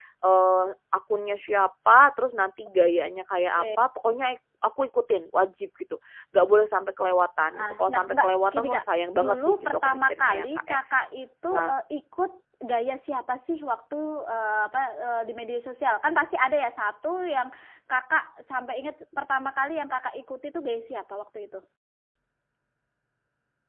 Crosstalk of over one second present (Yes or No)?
Yes